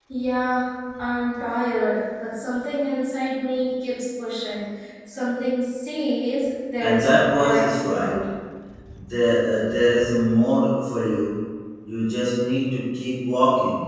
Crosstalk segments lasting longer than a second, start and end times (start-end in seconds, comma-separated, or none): 6.8-8.2